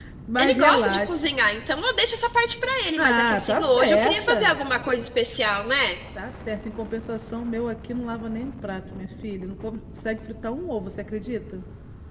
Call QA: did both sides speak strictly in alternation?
No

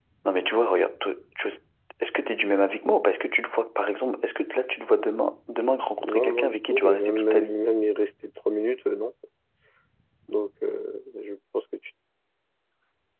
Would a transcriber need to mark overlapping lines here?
Yes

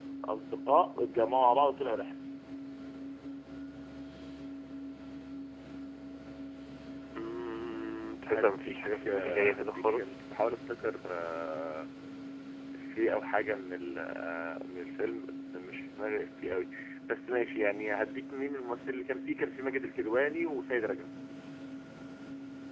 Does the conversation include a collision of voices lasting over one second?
Yes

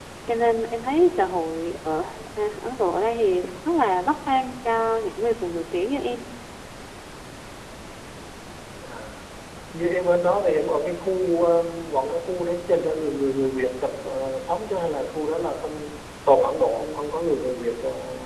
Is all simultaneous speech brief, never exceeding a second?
Yes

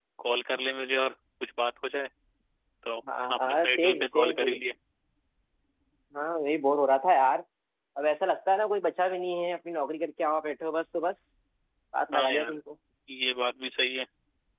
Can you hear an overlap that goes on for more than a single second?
Yes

